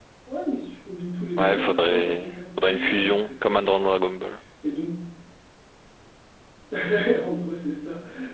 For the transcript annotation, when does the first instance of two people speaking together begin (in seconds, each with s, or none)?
1.4 s